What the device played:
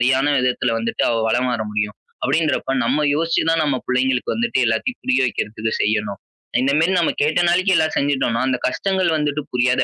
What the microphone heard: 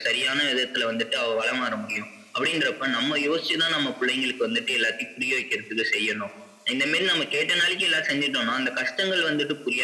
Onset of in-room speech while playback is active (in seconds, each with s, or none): none